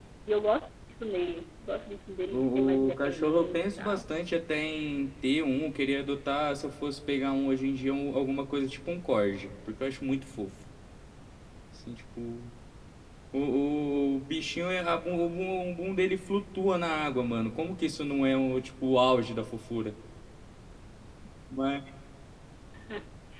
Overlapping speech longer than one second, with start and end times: 2.3-4.0

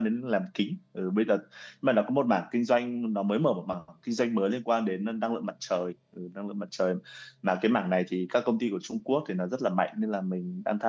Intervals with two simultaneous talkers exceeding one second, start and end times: none

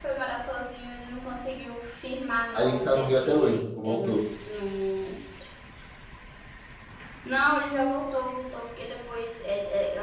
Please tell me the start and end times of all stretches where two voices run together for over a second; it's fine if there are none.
2.5-4.2

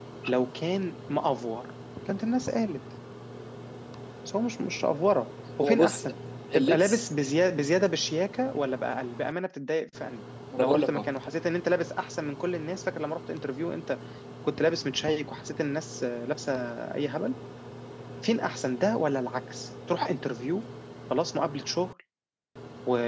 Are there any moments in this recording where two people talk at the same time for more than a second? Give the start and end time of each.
none

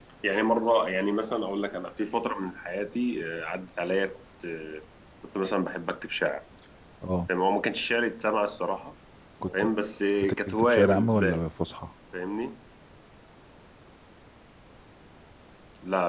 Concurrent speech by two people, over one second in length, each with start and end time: 10.2-11.4

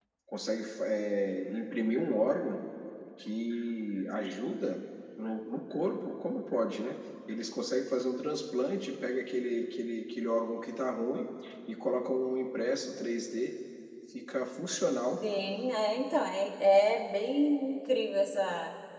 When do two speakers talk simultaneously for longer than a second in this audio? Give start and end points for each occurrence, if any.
none

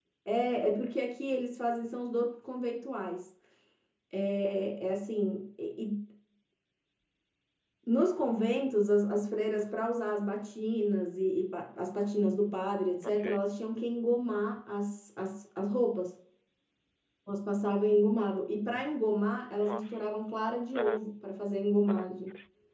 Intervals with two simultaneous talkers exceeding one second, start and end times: none

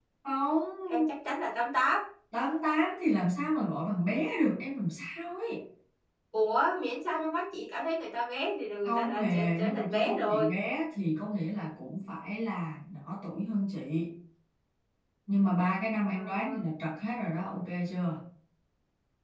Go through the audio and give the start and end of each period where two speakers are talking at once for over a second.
8.8-10.5

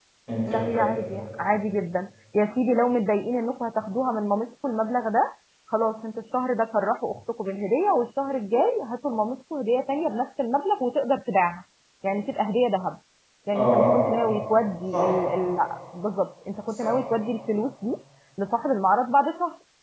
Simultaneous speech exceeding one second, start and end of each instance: none

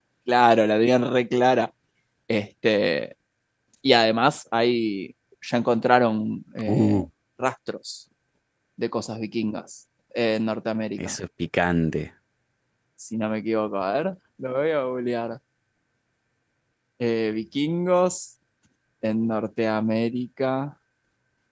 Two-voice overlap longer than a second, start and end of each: none

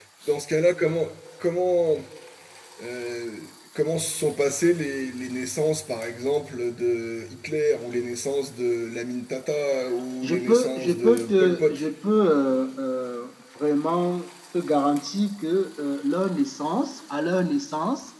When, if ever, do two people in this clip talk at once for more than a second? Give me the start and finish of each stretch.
10.2-11.8

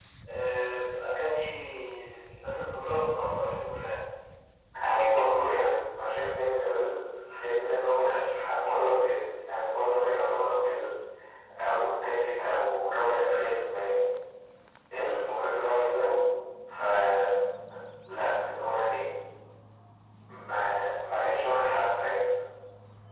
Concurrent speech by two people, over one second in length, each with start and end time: none

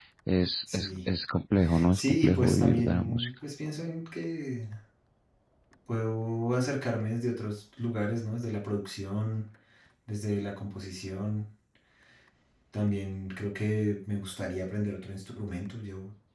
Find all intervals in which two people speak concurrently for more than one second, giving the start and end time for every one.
1.9-3.3

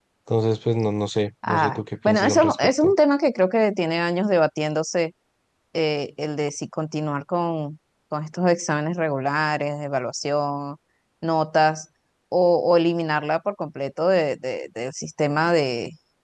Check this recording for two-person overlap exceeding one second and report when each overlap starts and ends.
1.5-2.9

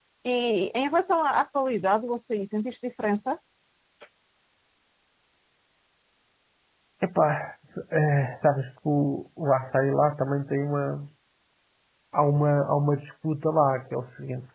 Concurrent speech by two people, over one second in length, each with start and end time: none

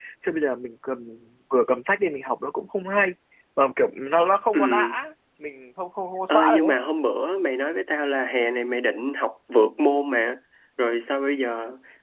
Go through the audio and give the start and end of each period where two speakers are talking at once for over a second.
none

